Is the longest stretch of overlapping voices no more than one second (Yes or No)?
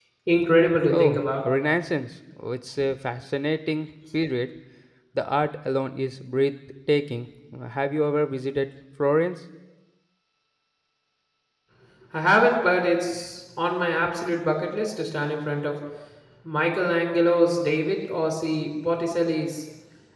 Yes